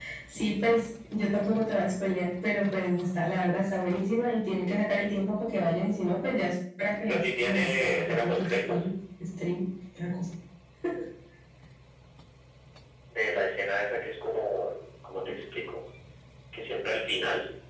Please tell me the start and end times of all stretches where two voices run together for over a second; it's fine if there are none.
7.1-8.9

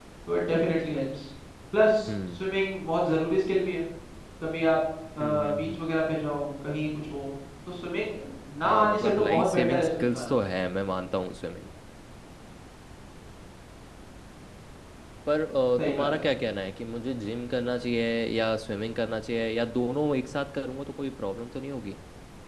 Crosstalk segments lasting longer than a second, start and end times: 8.6-10.4

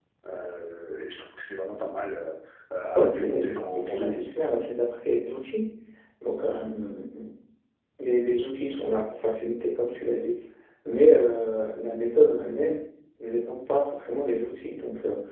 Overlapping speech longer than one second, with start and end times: 2.9-4.3

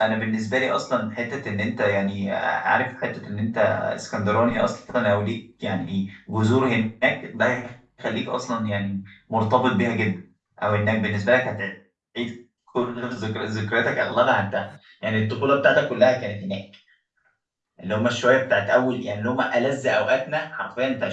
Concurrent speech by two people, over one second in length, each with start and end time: none

